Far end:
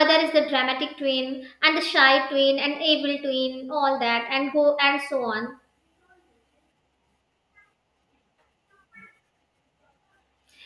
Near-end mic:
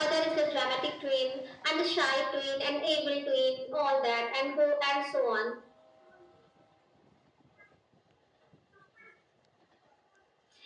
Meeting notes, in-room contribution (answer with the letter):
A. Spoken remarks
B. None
B